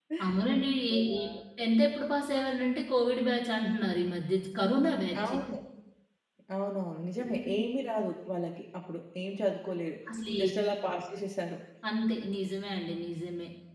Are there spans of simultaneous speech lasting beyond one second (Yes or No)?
No